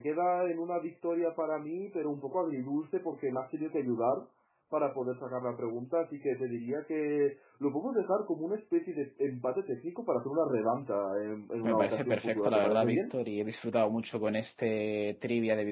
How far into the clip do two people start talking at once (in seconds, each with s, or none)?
11.6 s